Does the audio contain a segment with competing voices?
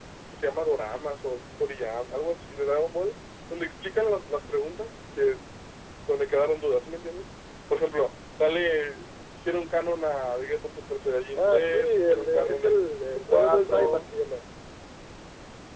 Yes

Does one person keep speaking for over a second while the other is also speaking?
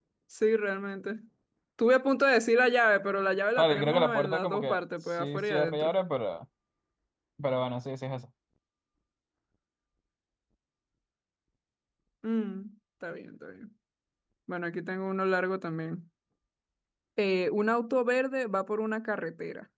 Yes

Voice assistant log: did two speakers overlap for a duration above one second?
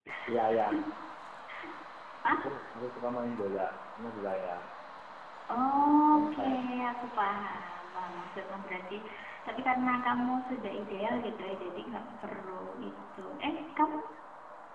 No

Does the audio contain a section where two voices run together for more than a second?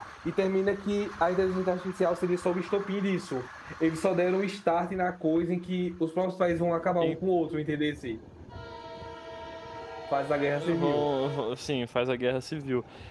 No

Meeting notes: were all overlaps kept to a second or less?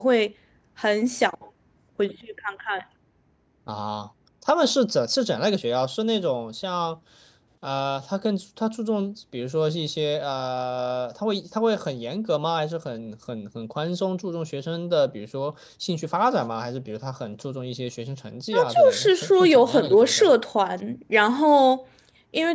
No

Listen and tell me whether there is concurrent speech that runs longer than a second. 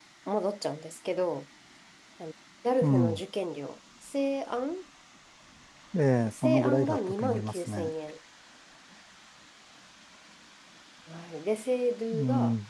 Yes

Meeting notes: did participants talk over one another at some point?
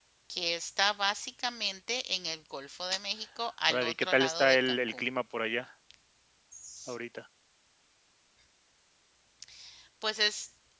Yes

